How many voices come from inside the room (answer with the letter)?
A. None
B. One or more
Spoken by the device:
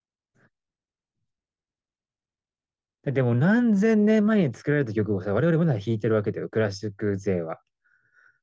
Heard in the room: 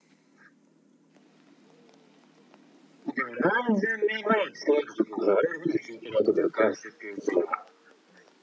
A